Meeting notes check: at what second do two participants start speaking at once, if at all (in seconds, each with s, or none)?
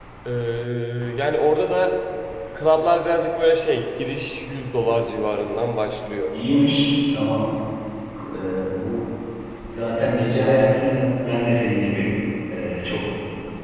none